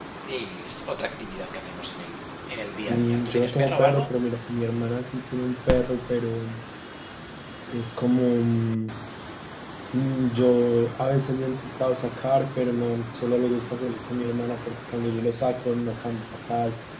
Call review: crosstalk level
present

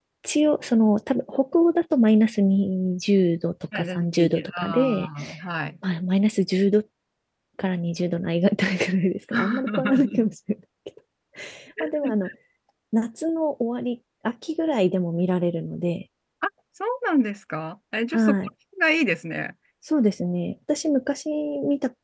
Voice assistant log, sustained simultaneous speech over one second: present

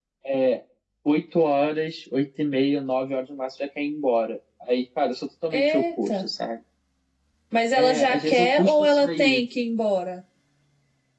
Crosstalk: present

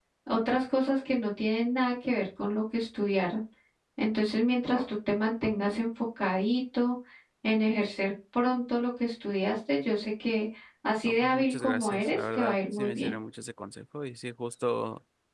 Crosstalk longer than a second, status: present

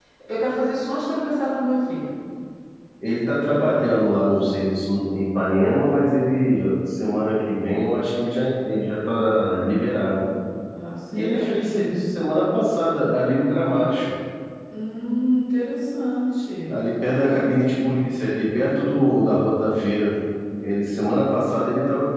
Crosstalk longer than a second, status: none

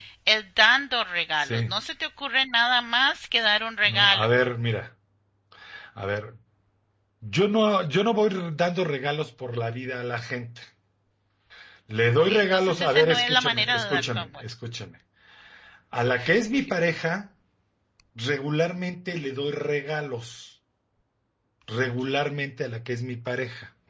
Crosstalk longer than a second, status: present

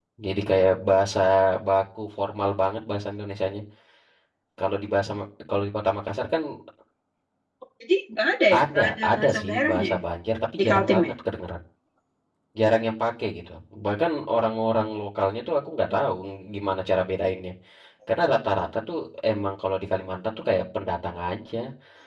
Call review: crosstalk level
present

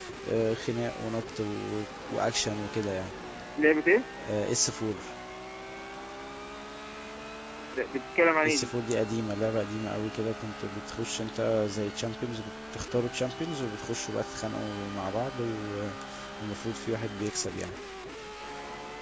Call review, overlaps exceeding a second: none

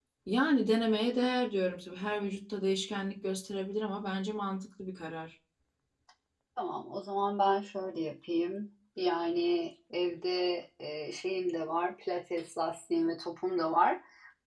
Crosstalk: none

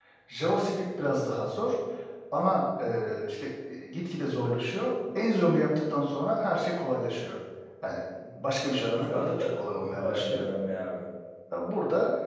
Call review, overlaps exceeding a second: present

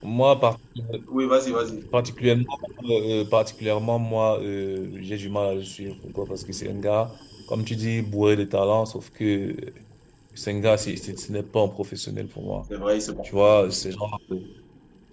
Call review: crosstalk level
none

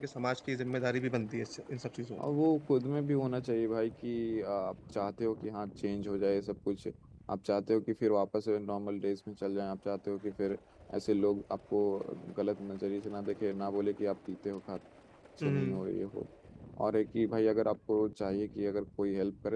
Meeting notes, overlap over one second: none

